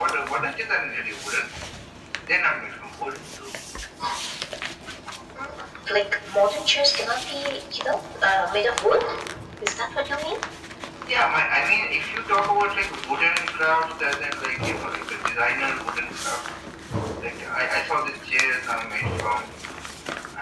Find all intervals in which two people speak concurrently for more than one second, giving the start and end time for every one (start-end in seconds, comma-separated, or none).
none